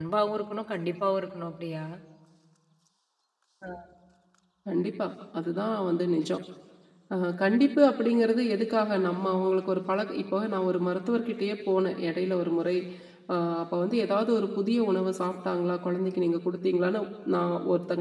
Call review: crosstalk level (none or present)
none